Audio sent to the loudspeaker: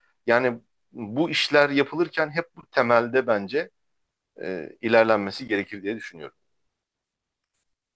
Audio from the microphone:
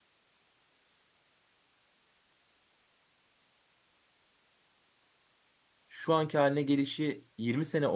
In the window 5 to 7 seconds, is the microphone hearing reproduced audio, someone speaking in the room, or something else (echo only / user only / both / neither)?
user only